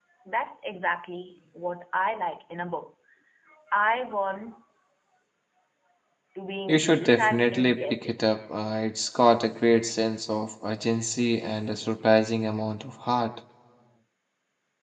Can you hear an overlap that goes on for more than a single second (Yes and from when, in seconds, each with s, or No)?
Yes, from 6.7 s